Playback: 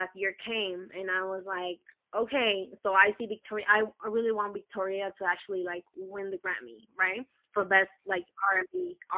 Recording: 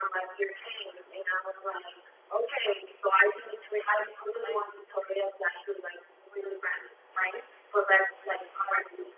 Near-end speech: present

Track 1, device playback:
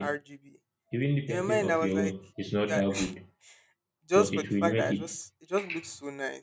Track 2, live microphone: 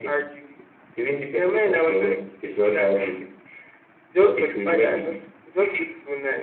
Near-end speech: none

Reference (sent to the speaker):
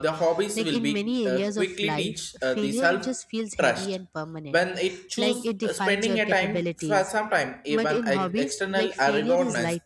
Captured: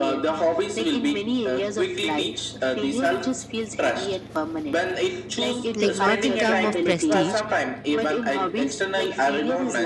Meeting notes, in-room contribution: present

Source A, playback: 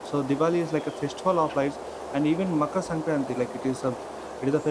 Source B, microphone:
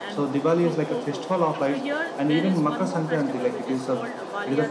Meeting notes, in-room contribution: present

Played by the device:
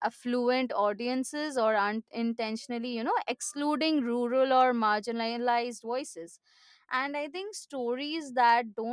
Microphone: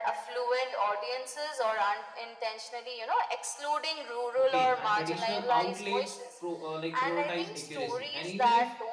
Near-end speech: present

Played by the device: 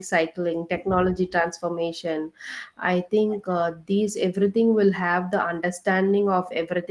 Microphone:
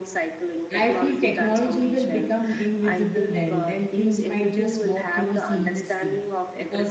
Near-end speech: present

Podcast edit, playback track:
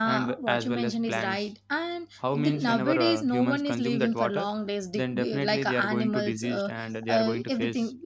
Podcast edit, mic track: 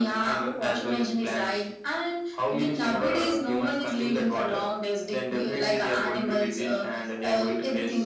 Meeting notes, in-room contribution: none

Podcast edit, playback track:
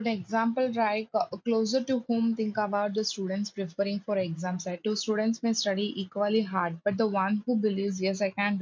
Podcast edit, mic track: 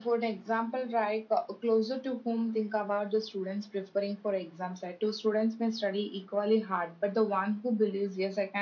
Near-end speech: none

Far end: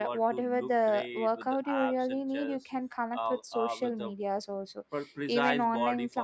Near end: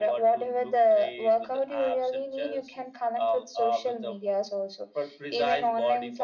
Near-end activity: none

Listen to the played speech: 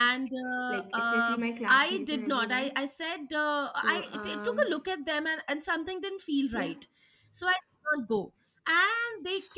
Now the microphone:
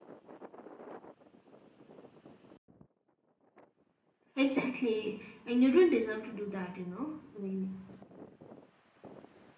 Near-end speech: present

